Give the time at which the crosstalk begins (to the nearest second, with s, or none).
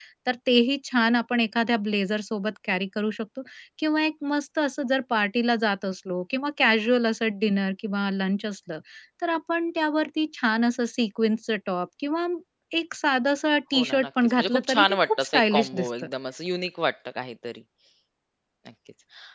14 s